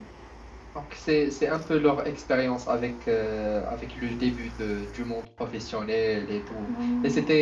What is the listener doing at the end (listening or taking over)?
listening